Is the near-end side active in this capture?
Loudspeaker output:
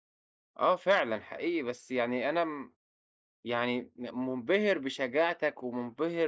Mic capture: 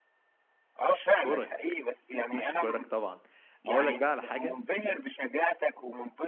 Yes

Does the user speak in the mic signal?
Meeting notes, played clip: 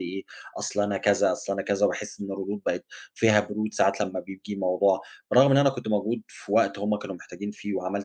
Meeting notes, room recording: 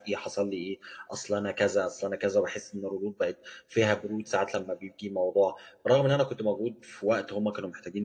No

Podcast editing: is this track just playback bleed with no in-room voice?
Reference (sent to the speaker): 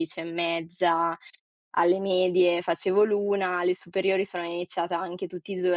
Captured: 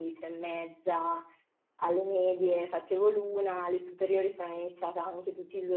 Yes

